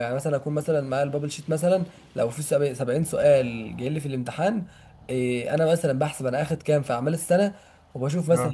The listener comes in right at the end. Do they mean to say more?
No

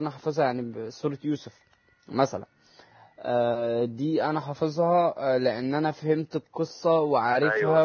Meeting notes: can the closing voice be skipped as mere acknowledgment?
No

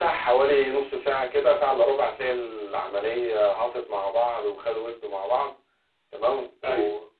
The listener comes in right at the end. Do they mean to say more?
No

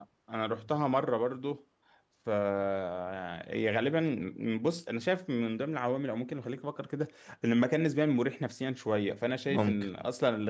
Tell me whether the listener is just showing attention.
Yes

